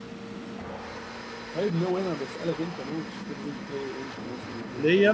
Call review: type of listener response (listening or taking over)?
taking over